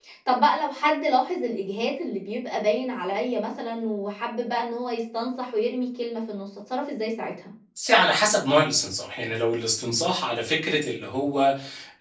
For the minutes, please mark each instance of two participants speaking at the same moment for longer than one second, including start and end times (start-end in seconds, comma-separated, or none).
none